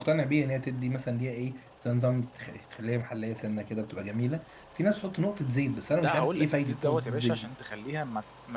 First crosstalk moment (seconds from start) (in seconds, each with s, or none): 6.0 s